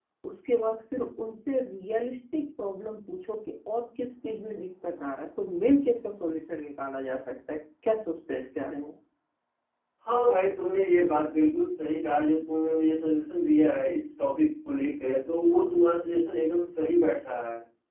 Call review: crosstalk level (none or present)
none